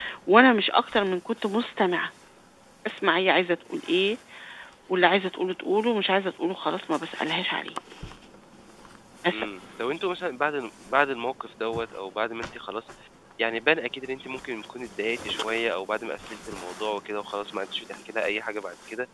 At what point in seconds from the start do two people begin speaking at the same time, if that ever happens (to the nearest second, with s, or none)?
none